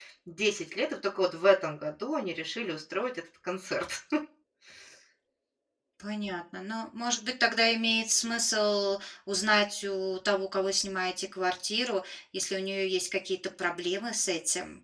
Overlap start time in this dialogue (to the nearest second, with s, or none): none